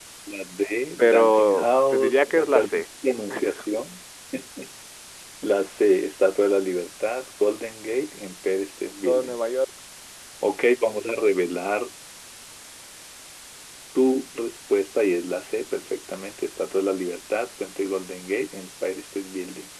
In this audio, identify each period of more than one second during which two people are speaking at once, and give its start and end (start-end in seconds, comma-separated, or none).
1.0-2.8